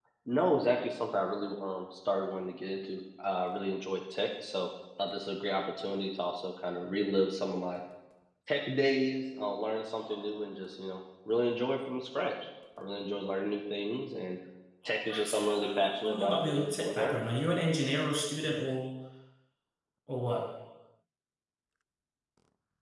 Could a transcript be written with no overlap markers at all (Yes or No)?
No